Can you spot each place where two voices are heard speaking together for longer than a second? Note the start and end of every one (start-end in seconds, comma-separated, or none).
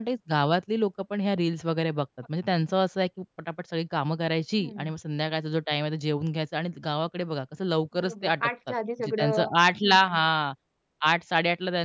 8.0-9.5